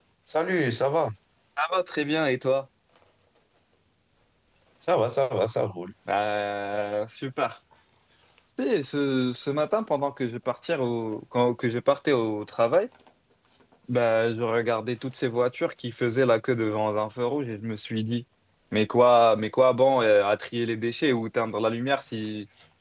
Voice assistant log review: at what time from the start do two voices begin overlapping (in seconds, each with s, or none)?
none